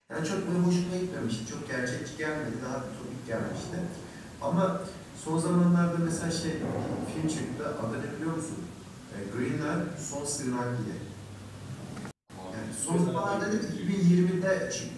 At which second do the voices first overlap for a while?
12.5 s

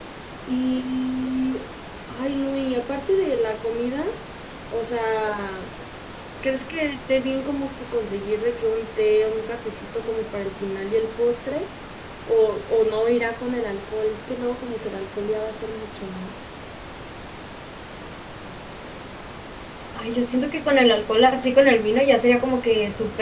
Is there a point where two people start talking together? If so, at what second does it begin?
none

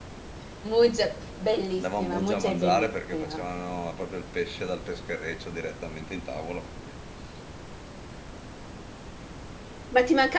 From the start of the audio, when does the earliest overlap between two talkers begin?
1.8 s

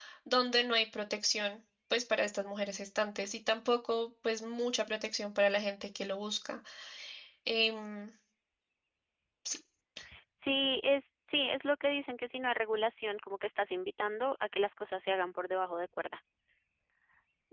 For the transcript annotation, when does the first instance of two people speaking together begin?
none

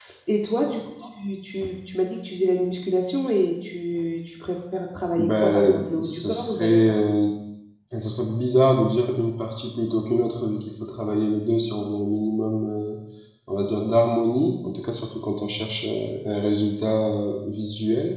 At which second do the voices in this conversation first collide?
5.2 s

